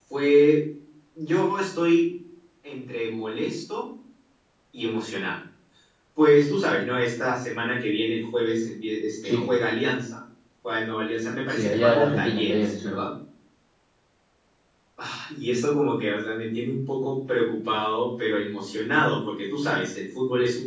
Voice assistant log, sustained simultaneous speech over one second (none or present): present